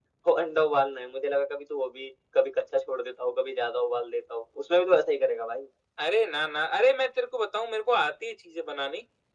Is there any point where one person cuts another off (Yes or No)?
No